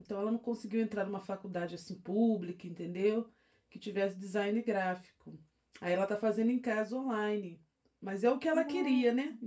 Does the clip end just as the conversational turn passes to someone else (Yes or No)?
No